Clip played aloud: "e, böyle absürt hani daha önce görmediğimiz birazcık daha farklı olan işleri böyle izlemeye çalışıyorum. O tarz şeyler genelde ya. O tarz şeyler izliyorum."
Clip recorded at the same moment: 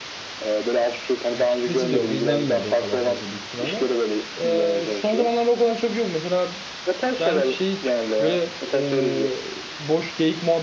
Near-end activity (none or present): present